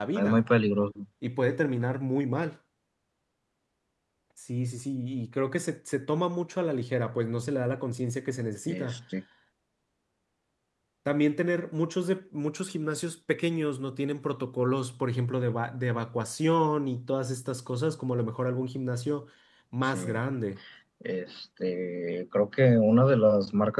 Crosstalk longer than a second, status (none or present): none